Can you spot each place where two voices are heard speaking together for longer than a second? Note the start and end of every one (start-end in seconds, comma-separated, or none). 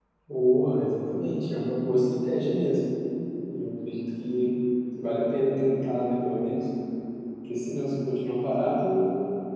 none